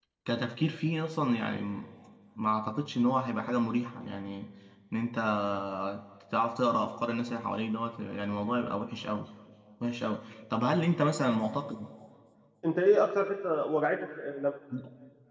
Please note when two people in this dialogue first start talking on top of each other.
none

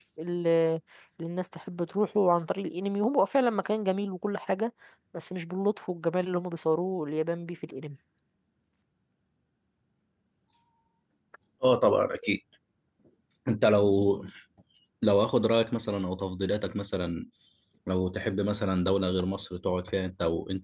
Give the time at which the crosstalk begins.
none

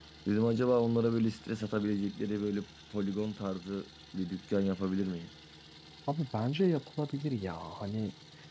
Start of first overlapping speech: none

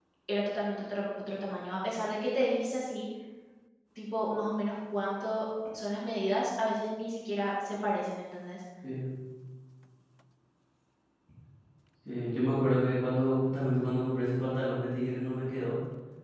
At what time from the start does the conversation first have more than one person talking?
none

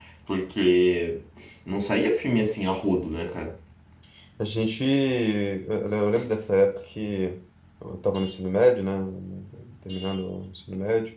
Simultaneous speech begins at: none

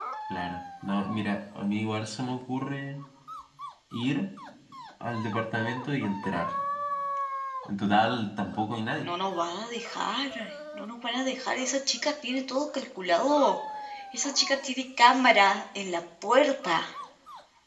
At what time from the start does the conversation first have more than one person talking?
none

